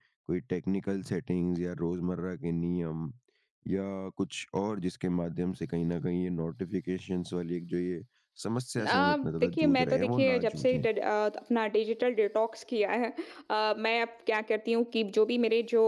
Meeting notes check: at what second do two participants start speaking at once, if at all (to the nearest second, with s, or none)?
9 s